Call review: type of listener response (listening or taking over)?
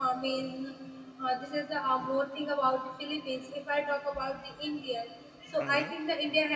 listening